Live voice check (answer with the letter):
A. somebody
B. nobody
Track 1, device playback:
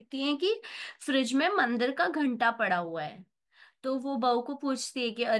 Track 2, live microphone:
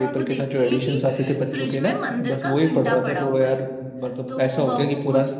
A